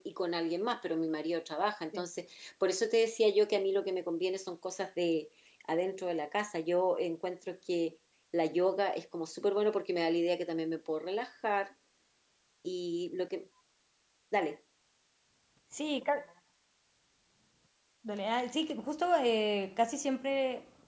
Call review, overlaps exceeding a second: none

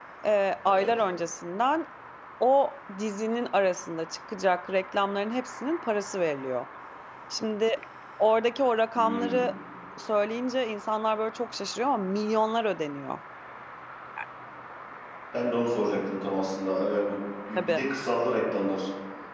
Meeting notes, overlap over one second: none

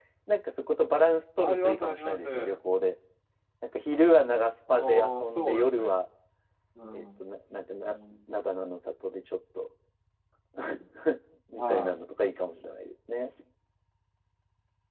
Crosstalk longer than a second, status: present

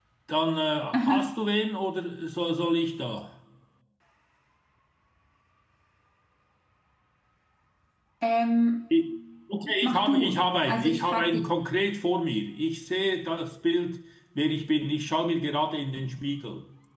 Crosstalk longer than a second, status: present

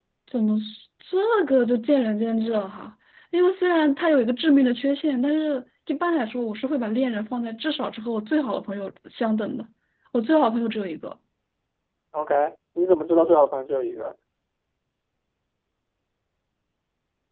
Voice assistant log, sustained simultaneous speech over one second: none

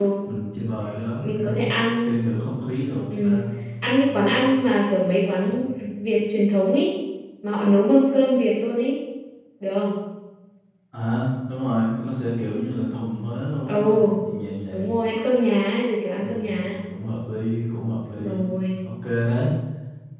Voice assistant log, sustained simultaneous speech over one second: none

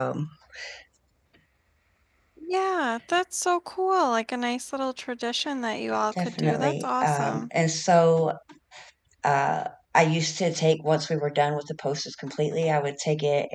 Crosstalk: present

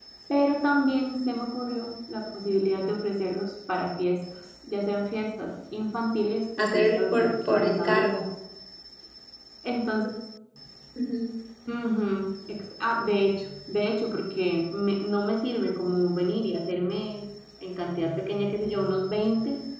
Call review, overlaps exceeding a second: present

